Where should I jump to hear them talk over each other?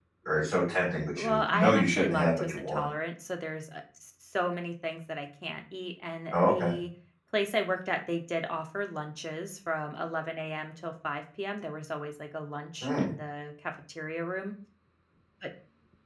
1.2 s

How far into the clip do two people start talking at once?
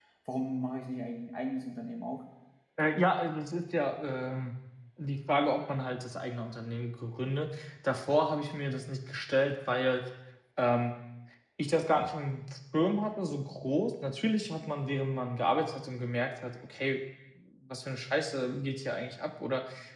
none

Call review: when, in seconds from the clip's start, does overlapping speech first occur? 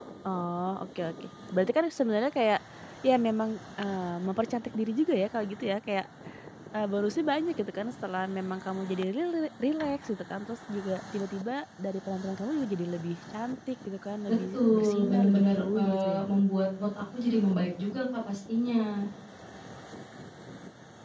14.3 s

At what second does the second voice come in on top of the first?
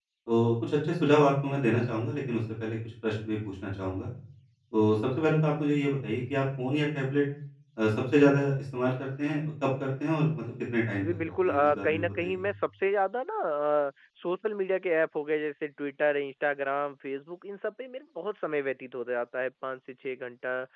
11.0 s

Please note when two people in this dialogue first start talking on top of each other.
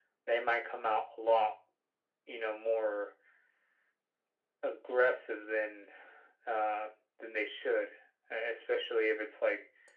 none

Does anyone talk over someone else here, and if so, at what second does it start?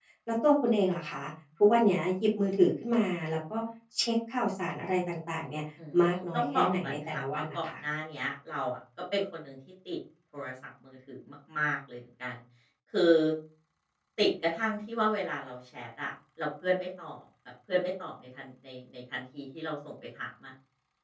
6.0 s

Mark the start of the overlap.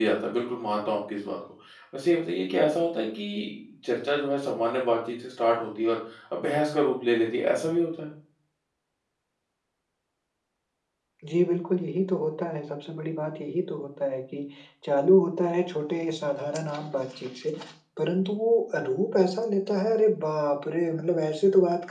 none

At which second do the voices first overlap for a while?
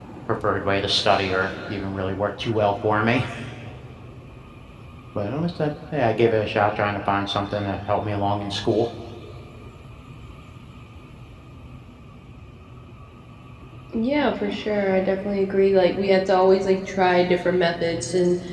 none

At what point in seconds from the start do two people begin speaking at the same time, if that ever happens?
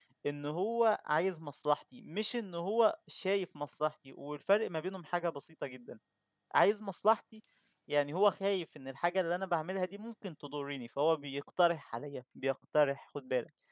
none

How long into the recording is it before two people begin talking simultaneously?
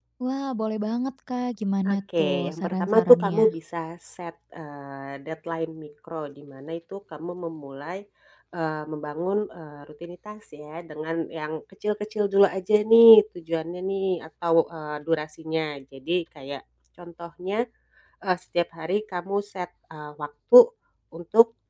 1.8 s

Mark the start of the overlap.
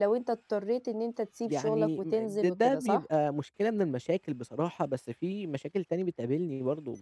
1.5 s

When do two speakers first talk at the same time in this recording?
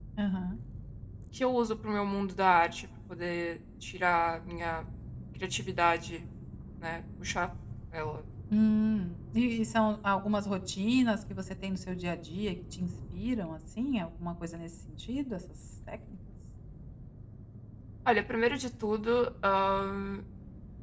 none

